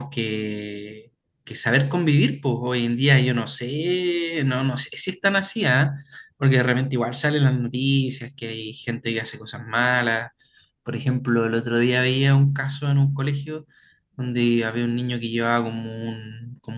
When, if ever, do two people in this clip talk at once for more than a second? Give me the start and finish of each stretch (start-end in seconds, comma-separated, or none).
none